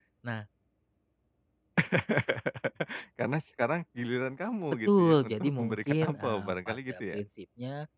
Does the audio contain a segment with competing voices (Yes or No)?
Yes